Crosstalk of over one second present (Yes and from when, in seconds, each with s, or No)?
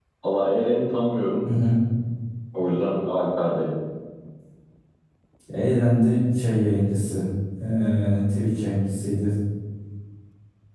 No